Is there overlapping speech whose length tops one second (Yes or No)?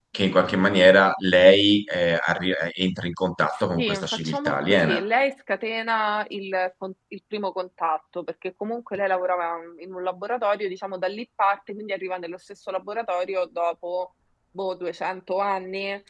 Yes